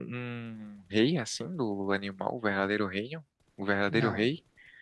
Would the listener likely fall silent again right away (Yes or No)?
No